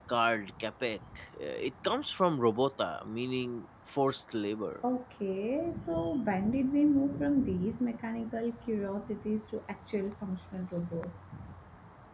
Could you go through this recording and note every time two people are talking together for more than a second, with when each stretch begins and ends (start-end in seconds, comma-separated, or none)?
none